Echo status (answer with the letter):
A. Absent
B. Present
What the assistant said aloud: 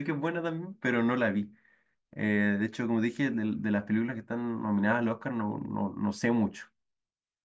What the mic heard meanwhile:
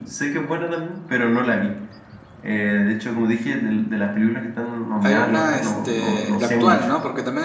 B